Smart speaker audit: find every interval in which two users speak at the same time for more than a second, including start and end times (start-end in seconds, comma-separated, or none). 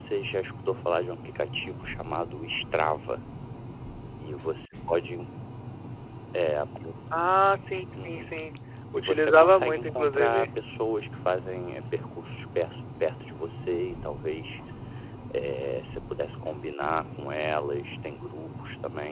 9.0-10.5